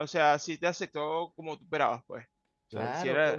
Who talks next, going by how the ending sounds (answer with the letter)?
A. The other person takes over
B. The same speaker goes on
A